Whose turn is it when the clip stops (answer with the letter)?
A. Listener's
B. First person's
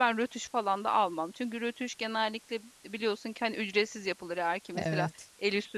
B